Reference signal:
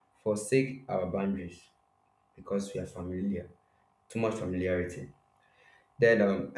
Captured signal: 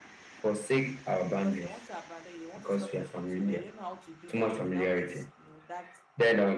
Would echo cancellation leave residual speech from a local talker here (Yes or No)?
Yes